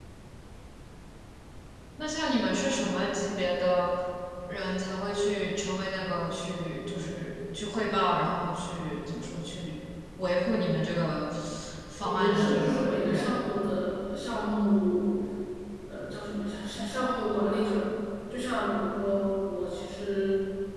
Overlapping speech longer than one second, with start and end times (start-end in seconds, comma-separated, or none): 12.0-13.4